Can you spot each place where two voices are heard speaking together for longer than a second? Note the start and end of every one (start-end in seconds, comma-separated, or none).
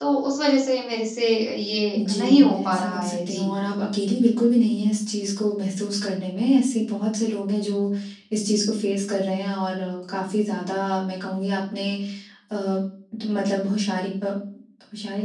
2.0-3.5